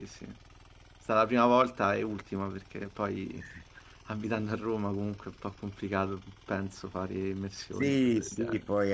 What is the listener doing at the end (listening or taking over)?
taking over